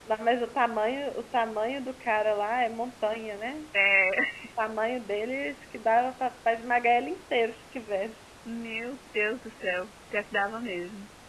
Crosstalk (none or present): none